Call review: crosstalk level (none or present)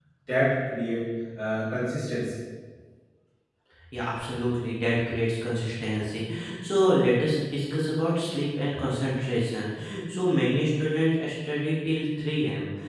none